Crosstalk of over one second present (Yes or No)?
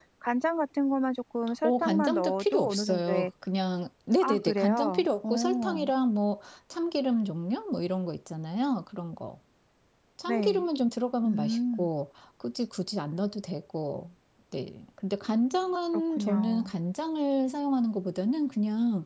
Yes